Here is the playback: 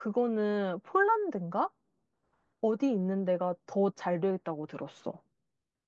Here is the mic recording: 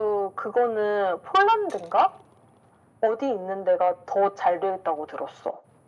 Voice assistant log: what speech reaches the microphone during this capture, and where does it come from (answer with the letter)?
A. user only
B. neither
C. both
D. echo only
D